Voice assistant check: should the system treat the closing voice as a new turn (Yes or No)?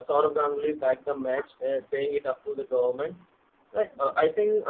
No